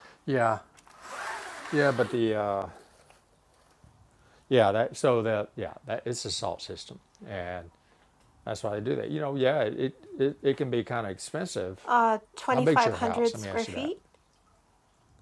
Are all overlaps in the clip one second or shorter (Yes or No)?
No